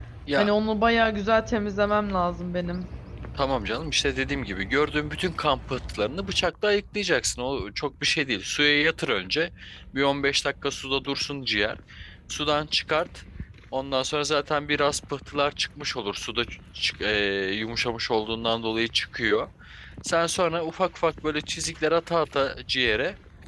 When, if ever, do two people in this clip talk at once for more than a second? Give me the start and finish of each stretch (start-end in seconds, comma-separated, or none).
none